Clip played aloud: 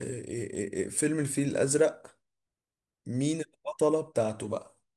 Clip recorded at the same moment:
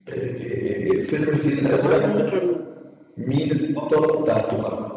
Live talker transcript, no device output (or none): الاول نيلي كريم